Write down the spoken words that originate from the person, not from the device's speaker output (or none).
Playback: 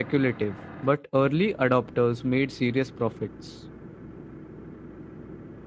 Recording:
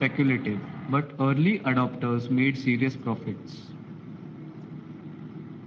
none